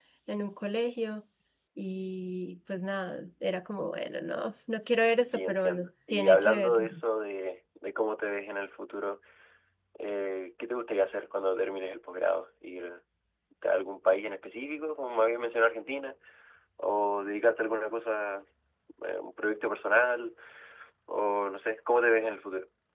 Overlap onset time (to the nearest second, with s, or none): 5 s